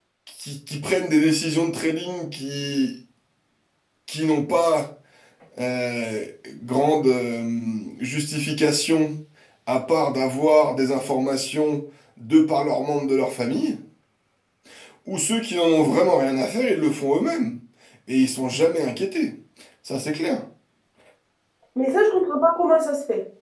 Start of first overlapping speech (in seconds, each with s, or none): none